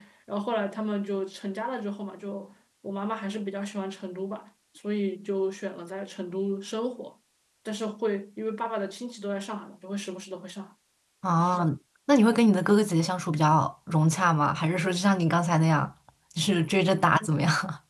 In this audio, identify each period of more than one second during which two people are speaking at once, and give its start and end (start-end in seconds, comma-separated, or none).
none